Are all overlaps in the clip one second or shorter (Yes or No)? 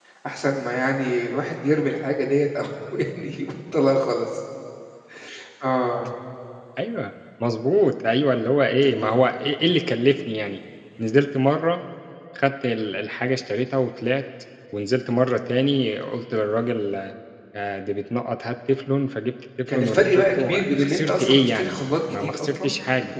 No